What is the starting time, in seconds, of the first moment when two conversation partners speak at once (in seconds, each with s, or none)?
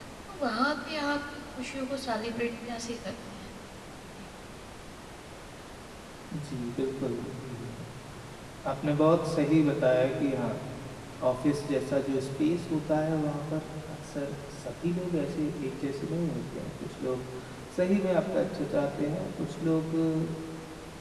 none